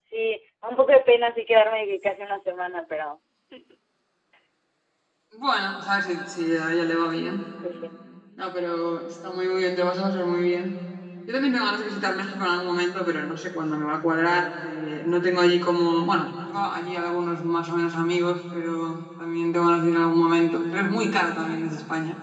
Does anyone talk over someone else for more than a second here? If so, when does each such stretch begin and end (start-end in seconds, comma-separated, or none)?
none